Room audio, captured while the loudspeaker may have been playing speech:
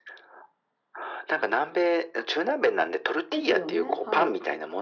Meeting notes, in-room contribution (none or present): present